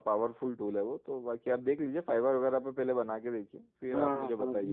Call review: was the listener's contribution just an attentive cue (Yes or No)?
No